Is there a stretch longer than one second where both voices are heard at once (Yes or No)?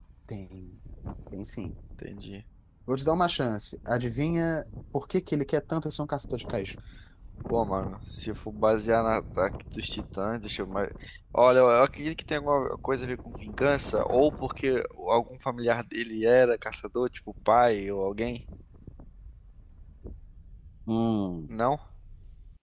No